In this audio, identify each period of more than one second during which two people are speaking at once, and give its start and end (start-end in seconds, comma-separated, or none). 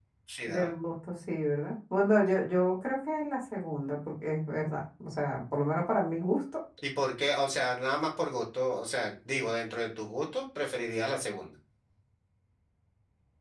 none